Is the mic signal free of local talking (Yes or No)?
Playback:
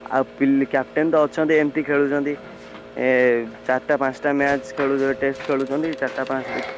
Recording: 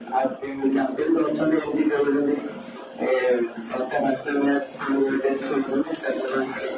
Yes